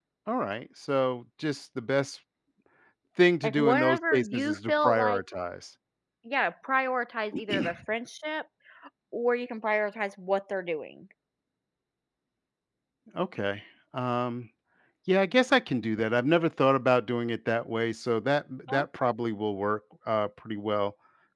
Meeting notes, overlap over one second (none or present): present